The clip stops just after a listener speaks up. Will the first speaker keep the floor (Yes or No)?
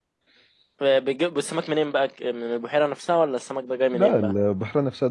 No